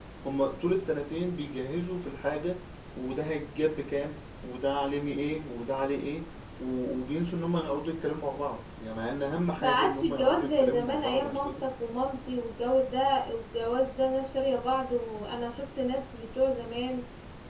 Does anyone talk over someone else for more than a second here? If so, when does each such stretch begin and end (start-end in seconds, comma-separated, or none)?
9.6-11.5